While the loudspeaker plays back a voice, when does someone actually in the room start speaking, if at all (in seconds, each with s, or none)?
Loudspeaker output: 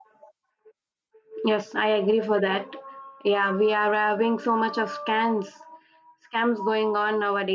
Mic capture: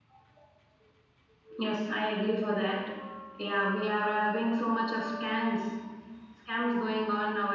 none